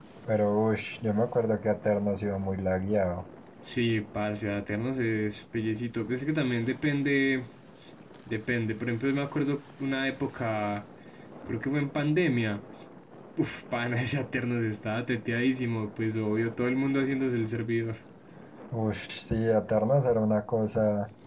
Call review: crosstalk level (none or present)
none